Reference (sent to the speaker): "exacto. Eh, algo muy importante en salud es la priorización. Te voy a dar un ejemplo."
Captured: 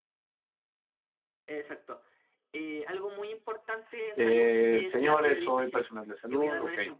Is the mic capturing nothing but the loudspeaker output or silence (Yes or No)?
No